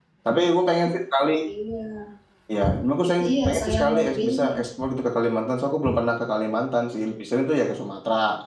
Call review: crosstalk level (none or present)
present